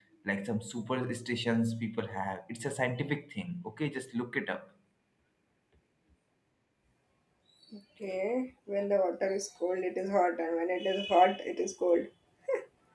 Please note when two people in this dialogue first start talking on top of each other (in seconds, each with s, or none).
none